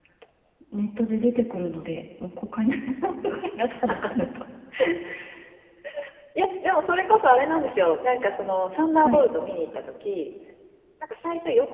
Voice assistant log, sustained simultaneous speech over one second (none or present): none